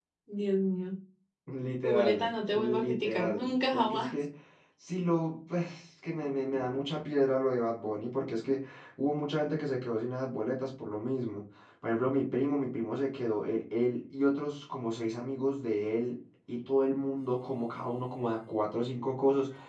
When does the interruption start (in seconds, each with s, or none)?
1.8 s